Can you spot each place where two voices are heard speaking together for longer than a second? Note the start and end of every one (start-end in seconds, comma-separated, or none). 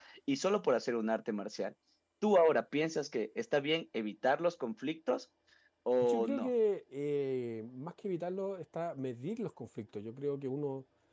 none